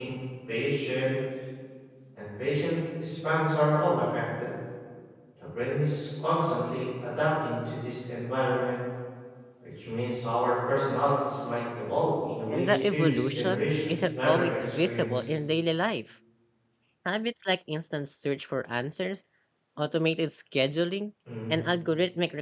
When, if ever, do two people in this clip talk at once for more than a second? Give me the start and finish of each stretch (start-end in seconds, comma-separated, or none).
12.5-15.2